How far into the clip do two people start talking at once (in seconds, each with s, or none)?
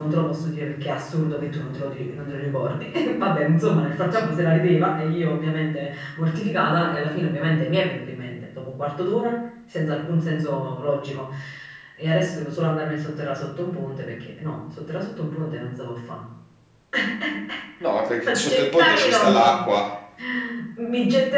18.2 s